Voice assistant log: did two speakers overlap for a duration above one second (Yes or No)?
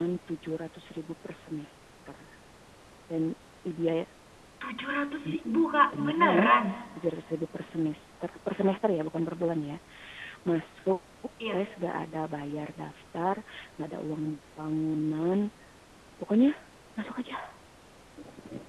No